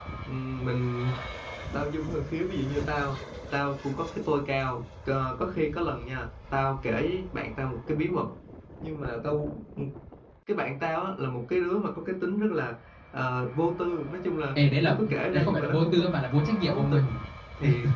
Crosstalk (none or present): present